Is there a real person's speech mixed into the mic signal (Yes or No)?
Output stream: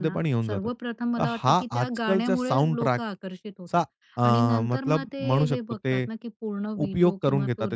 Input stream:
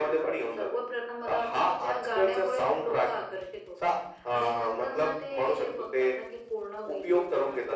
No